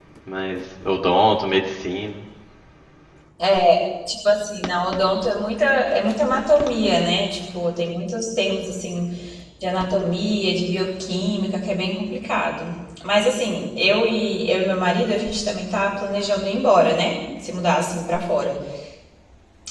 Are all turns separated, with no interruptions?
Yes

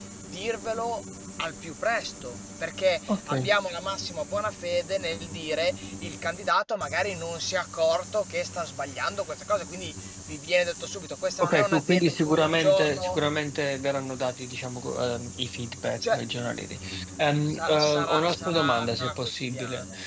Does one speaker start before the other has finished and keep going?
Yes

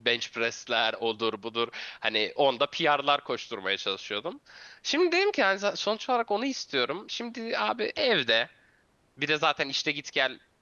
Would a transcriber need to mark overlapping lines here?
No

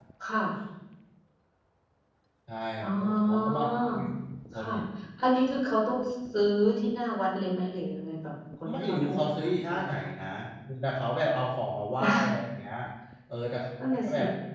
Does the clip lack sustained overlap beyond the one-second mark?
No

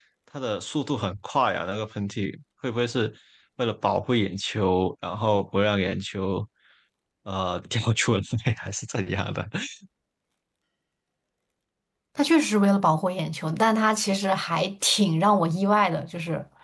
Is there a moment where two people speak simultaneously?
No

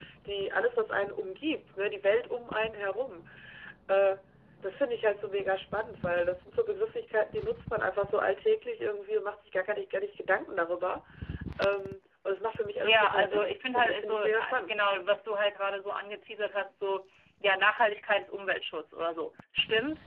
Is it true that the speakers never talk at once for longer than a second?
No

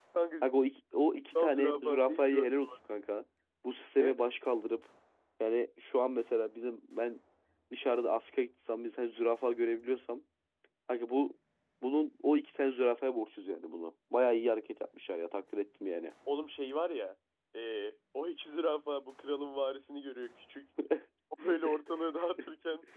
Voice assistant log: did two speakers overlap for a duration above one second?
Yes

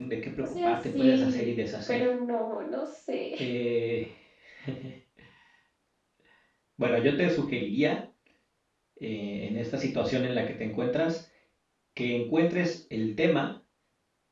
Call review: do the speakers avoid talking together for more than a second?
No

